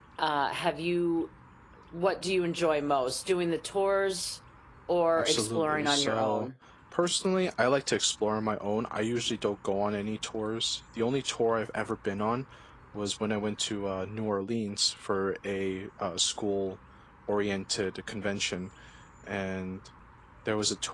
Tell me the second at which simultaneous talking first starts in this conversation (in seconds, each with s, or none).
5.2 s